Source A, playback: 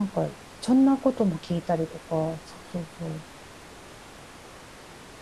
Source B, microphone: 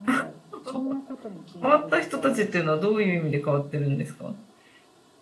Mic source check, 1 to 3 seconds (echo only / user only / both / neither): both